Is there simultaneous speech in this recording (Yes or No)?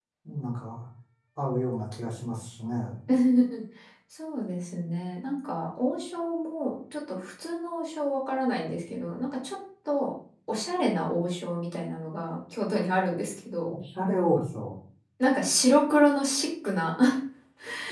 No